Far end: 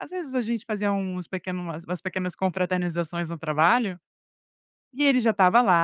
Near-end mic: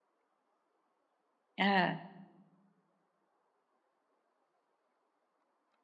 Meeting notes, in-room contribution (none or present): present